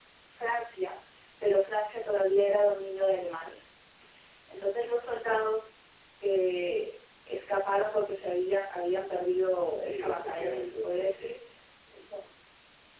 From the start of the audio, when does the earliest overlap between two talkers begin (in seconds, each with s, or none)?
9.5 s